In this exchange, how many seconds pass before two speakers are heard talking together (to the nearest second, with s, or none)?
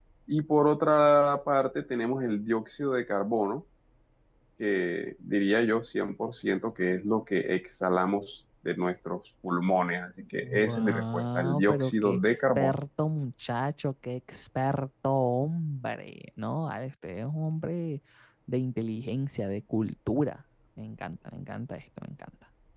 10 s